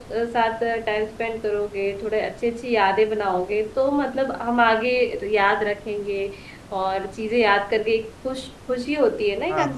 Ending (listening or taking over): taking over